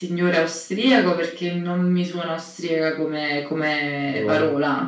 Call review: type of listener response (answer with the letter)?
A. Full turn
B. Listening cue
B